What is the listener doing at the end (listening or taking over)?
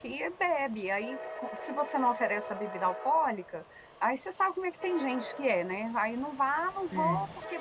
listening